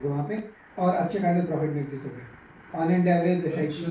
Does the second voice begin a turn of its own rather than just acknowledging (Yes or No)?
No